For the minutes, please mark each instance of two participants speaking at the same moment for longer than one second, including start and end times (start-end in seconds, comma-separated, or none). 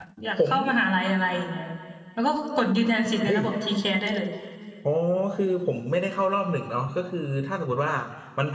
none